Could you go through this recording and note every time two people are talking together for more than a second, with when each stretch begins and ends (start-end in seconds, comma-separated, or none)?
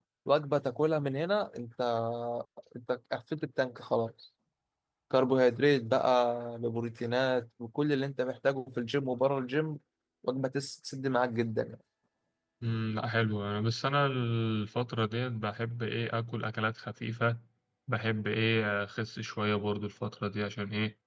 none